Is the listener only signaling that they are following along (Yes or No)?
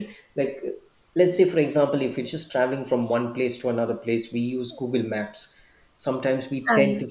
Yes